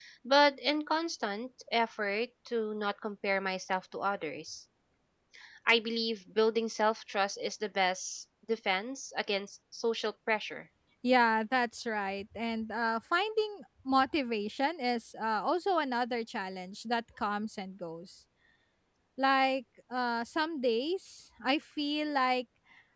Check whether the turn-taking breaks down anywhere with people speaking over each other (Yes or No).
No